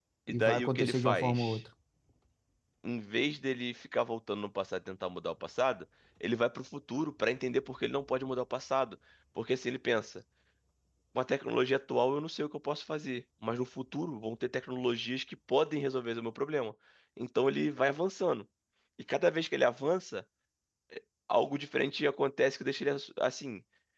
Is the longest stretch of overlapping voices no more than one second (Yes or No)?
No